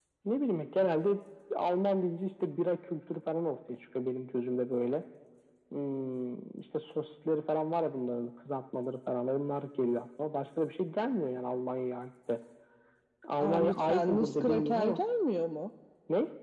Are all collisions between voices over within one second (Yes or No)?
No